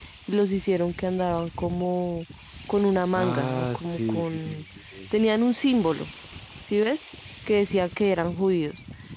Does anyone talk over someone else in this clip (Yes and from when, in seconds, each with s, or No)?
Yes, from 3.1 s